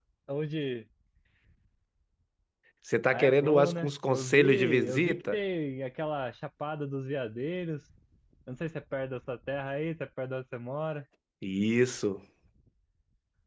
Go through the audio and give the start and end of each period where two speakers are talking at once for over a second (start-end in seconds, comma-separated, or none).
3.1-5.4